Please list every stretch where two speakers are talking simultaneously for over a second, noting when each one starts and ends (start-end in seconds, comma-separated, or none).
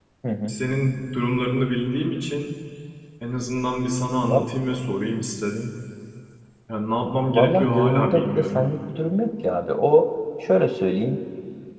7.3-8.7